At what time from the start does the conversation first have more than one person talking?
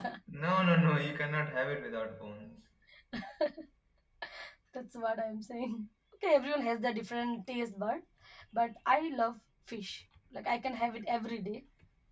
none

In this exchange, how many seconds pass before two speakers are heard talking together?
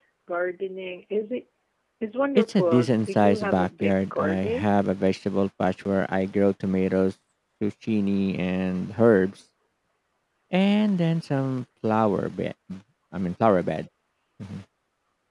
2.5 s

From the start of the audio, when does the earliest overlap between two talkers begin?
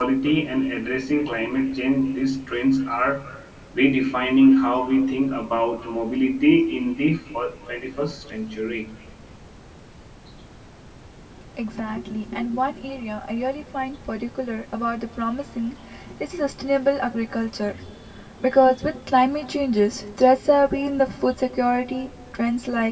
none

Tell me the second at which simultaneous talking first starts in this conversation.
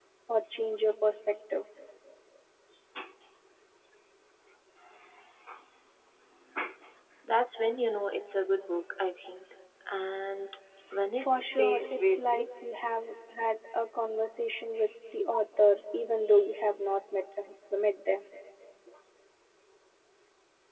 11.2 s

